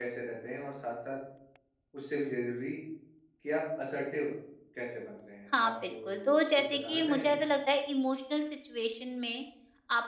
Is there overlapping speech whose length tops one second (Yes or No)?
Yes